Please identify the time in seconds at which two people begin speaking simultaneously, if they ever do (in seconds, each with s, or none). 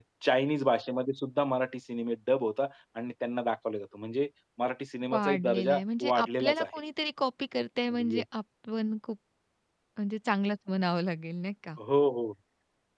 5.1 s